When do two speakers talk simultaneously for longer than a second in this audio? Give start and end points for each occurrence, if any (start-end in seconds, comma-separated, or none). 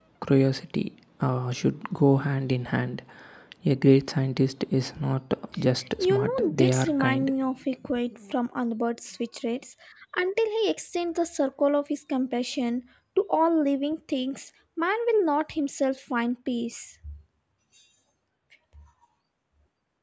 6.0-7.3